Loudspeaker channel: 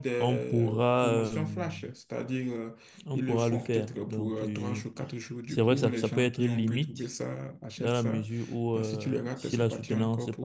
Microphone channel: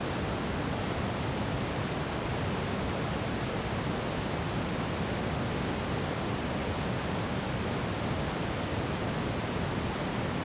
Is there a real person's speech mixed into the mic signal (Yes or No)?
No